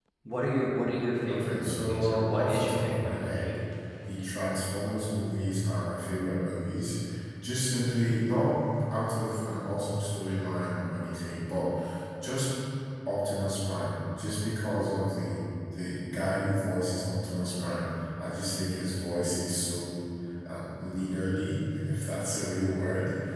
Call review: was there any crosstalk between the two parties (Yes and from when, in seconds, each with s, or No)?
Yes, from 1.3 s